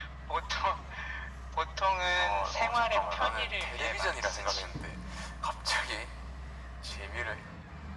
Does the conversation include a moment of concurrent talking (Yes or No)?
Yes